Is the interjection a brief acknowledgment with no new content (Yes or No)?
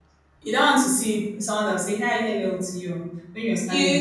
No